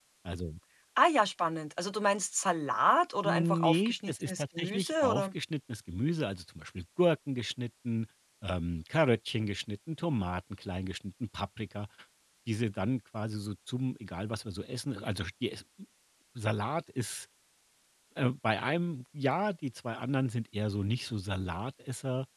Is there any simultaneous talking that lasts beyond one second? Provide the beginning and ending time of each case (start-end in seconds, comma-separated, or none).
3.2-5.3